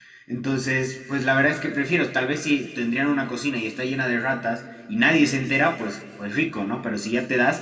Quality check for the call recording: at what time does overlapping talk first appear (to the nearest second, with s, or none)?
none